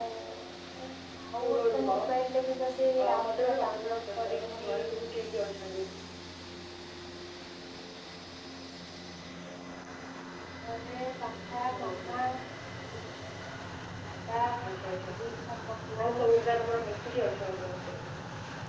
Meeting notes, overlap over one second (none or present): present